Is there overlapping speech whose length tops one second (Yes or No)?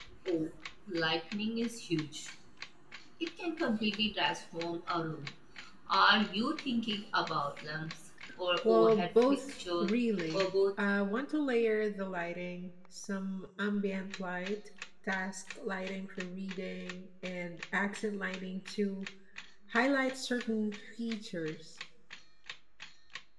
Yes